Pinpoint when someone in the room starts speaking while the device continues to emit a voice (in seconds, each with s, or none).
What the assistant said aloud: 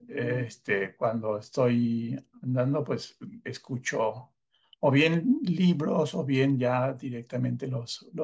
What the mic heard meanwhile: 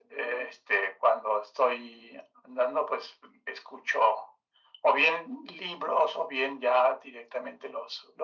none